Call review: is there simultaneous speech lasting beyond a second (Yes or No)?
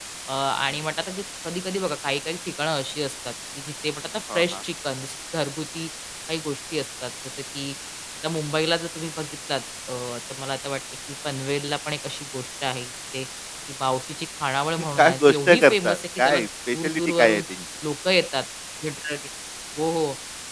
Yes